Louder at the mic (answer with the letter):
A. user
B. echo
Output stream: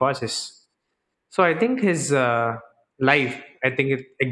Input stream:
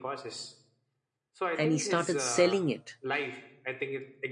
A